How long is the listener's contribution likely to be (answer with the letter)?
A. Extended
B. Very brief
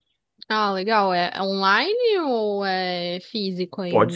A